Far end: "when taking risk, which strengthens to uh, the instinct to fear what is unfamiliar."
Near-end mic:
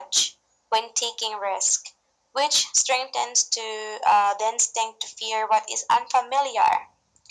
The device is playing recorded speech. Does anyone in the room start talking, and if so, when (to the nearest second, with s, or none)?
none